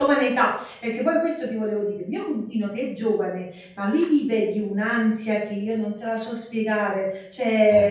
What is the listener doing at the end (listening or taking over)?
listening